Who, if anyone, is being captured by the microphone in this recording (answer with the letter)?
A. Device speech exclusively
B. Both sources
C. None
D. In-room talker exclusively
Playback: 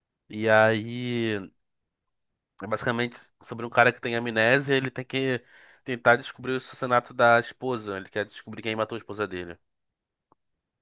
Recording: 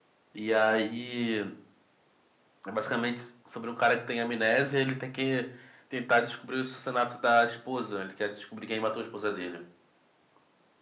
A